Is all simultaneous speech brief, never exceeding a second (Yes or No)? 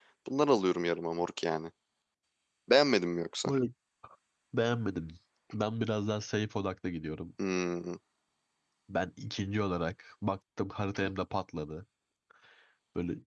Yes